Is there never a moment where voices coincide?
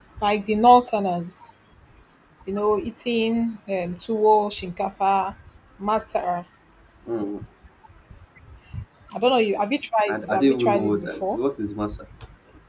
No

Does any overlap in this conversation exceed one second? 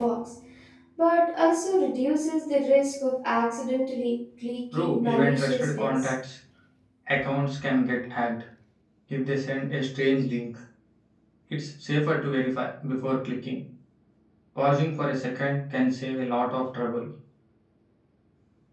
Yes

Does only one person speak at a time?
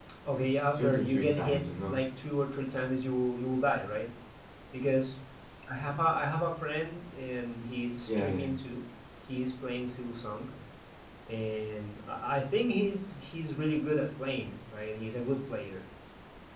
No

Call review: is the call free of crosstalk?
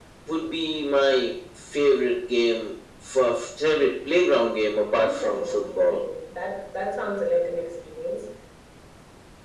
No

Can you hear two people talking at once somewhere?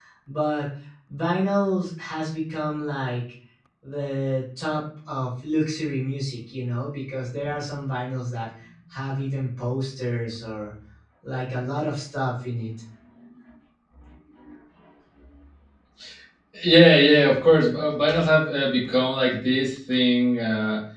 No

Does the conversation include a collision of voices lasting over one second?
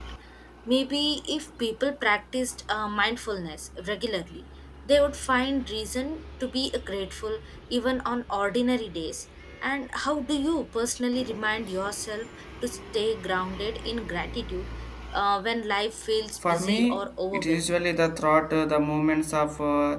Yes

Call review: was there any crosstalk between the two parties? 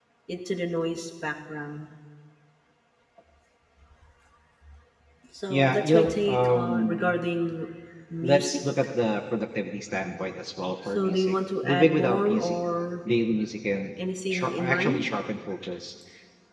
Yes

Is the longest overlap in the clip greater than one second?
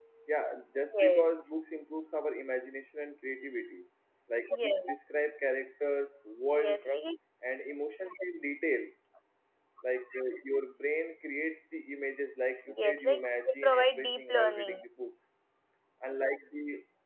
Yes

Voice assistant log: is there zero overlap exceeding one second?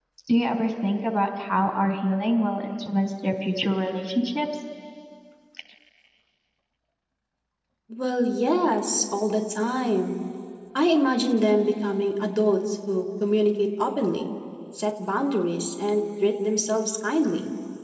Yes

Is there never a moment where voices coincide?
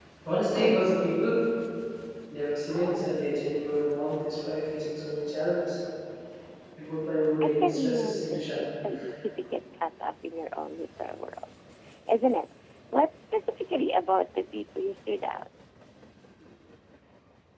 No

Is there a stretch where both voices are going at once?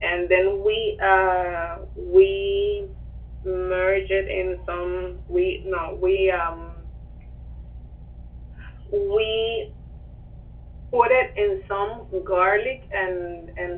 No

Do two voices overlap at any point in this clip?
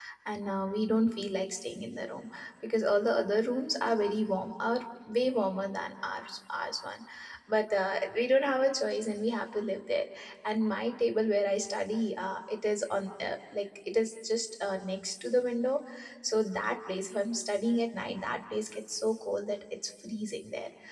No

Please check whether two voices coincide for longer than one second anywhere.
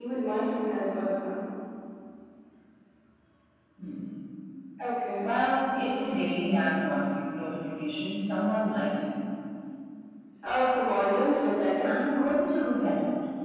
No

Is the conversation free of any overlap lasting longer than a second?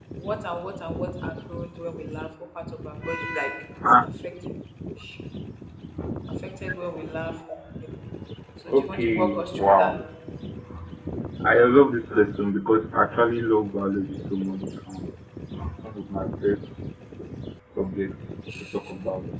No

